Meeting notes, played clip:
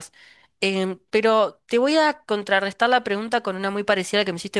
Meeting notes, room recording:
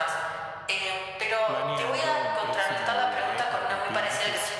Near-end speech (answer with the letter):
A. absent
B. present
B